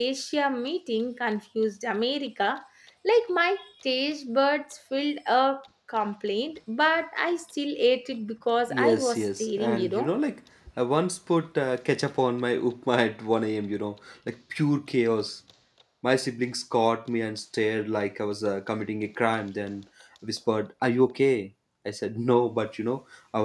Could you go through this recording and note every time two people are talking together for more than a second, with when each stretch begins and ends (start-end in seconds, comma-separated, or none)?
8.7-10.1